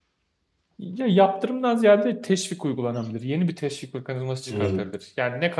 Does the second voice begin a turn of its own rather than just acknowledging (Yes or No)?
No